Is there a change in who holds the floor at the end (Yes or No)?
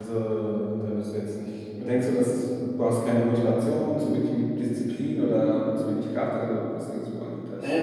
Yes